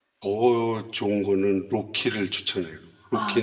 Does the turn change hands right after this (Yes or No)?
Yes